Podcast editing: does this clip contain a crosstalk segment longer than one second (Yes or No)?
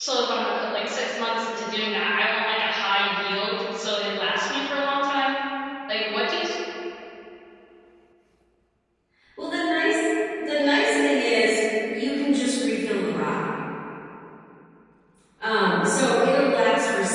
No